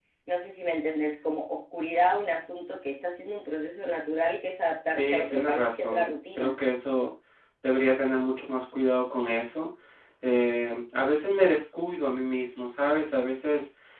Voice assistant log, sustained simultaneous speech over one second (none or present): present